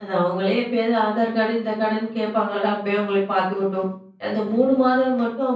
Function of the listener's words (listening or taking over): listening